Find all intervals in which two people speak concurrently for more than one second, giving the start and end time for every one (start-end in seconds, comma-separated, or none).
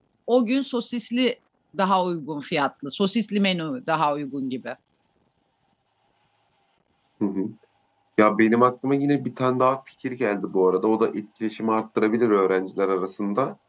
none